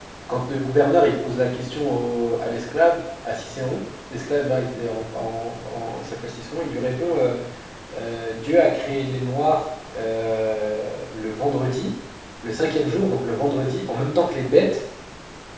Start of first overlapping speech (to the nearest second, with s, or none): none